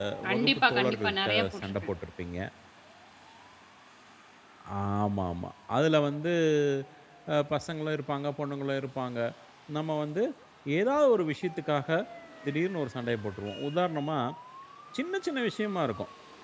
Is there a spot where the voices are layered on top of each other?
Yes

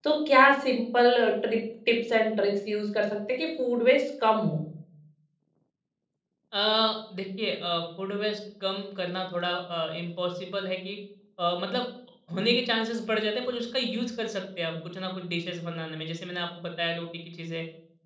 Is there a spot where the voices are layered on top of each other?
No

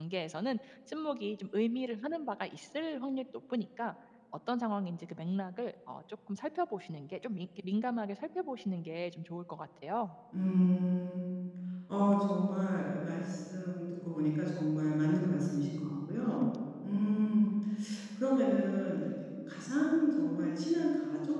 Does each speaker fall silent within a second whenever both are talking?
Yes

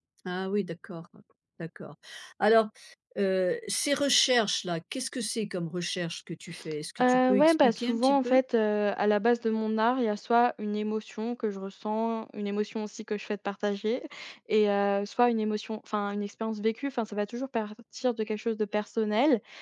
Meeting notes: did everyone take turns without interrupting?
No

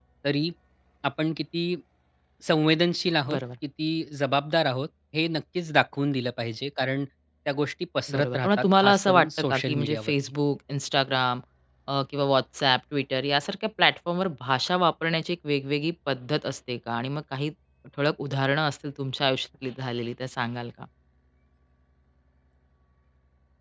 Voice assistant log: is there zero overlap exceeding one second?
No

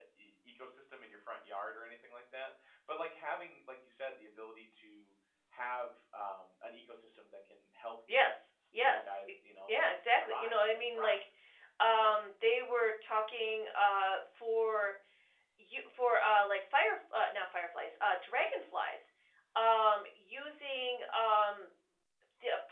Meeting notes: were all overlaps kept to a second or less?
No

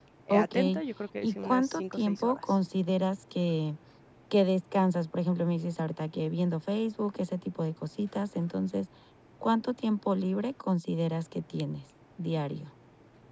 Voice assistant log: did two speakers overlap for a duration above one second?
Yes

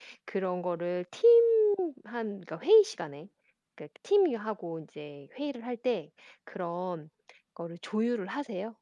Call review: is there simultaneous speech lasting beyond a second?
No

